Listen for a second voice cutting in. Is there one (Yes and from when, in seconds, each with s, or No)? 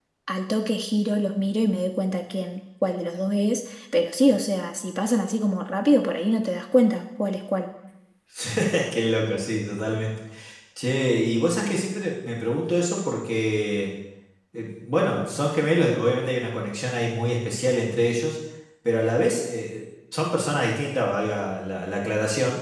No